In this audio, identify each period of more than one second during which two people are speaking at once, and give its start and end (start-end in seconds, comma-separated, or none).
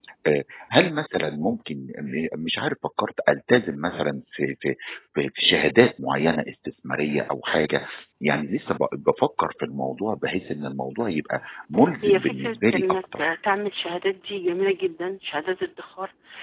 12.0-13.4